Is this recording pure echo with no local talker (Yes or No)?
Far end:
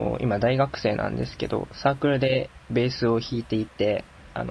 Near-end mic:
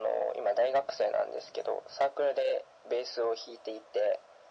Yes